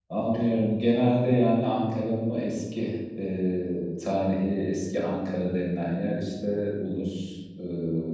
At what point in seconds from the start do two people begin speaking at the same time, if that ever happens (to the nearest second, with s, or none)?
none